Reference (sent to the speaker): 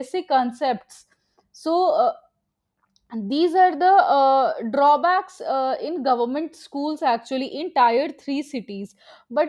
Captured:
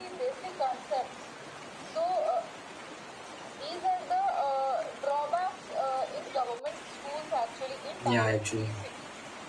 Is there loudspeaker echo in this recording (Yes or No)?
Yes